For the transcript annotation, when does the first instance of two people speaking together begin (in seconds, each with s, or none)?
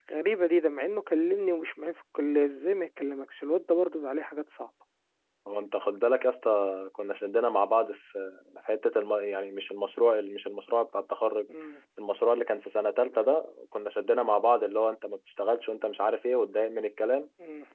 none